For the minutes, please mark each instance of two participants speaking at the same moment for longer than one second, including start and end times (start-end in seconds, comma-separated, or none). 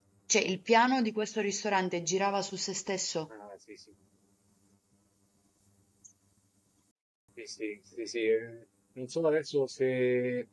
none